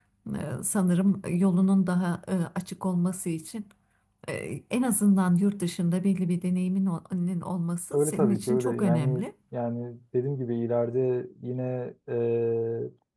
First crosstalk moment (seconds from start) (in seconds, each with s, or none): 7.9 s